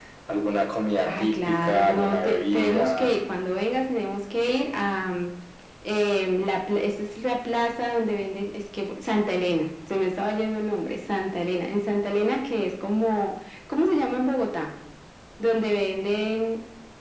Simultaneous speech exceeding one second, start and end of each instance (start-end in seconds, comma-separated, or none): 1.0-3.2